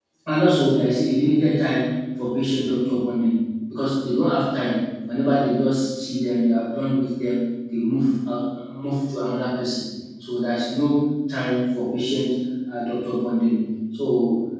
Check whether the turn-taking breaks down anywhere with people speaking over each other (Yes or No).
No